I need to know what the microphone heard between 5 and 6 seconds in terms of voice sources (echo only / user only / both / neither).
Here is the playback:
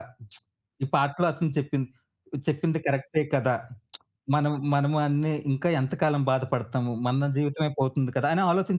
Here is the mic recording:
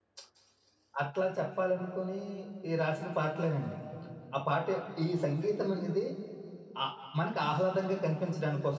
user only